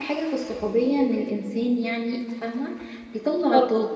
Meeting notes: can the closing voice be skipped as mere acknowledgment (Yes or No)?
Yes